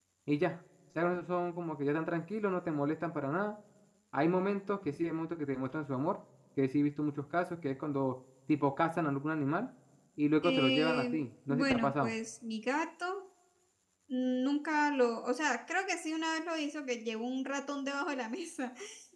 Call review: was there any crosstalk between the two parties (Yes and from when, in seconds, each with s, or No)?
Yes, from 10.4 s